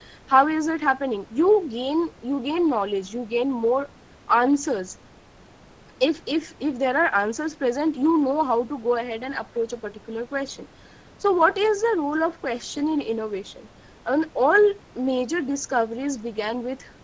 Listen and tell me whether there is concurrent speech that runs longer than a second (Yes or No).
No